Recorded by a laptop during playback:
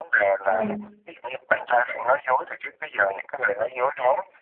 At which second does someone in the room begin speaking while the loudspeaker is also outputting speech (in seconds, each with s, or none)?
0.5 s